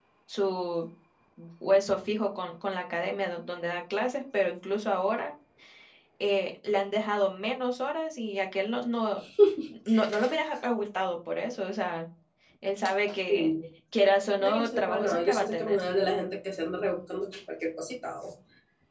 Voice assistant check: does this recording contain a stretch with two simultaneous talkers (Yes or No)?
Yes